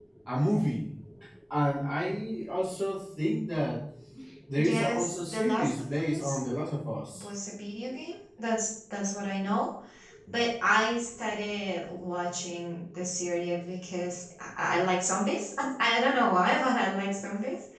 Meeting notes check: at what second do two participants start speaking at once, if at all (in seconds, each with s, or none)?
4.6 s